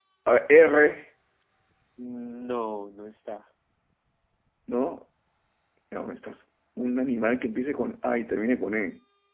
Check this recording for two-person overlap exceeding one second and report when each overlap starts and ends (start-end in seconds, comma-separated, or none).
none